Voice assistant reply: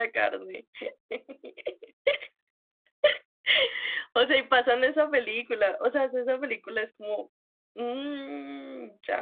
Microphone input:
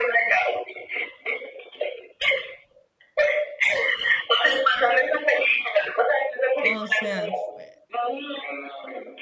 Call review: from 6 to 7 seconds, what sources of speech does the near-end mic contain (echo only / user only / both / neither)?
both